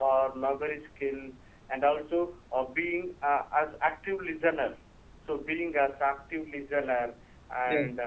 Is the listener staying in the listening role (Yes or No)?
Yes